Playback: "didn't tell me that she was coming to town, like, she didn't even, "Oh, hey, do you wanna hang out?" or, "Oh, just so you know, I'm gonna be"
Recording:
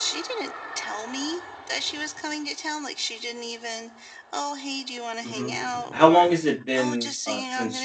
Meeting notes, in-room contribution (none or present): present